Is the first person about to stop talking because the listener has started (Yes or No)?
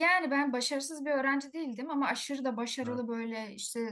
No